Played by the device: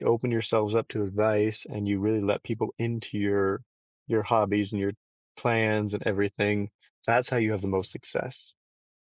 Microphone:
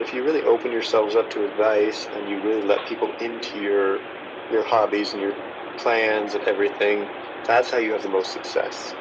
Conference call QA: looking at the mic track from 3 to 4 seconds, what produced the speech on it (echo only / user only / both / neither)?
echo only